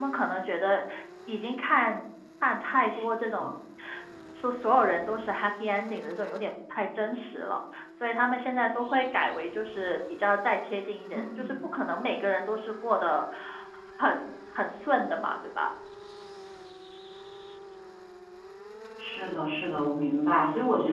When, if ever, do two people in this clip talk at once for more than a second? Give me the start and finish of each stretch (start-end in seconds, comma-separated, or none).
none